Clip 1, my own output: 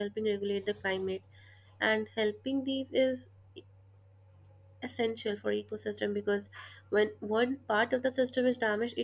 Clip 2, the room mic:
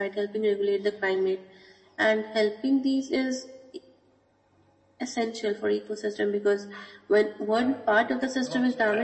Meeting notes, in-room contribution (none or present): present